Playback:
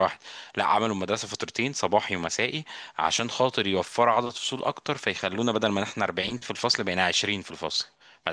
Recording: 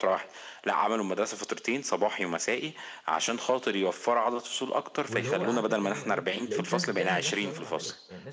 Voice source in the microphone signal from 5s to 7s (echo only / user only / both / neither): both